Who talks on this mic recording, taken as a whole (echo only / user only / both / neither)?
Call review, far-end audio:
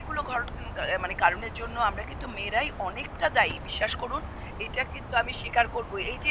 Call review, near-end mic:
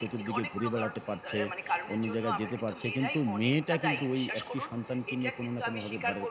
both